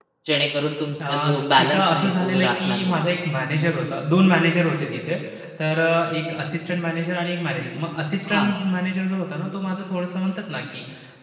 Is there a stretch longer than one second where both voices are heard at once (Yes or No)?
Yes